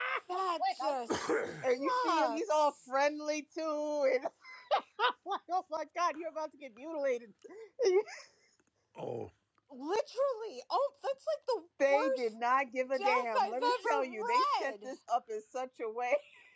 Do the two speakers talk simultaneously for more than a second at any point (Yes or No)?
Yes